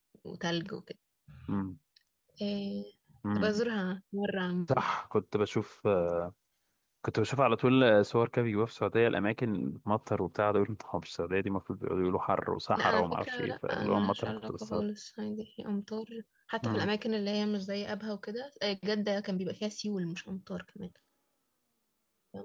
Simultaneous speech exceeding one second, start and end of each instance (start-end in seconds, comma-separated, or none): 12.8-14.8